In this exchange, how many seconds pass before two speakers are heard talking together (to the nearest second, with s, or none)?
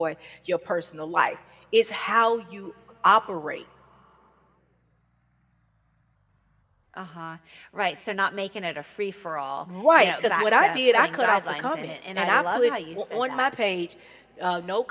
10 s